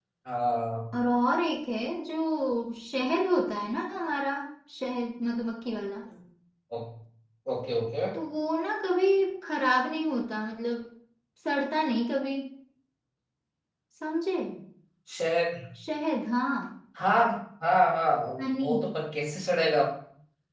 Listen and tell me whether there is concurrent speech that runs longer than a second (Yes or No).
No